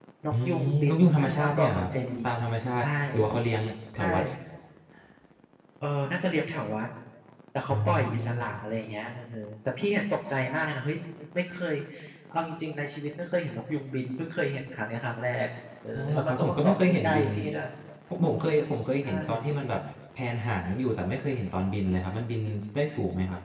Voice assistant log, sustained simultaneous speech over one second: present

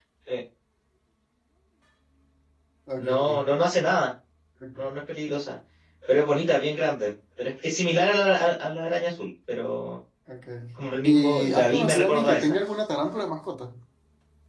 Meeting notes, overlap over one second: present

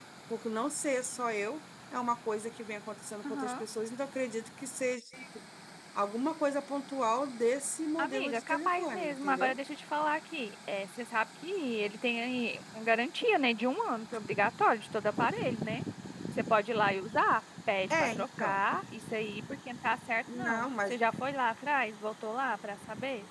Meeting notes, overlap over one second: present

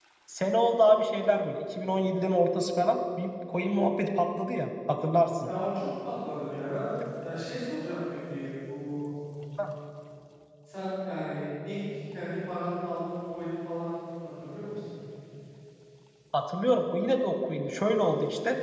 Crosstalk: none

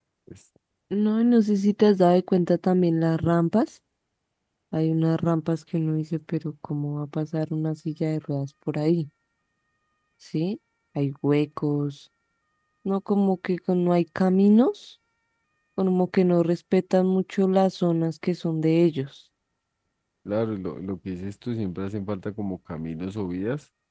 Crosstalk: none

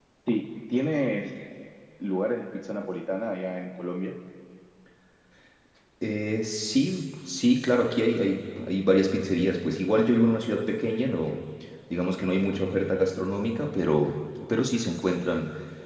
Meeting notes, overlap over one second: none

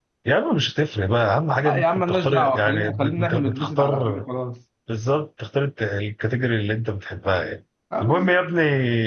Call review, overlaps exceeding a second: present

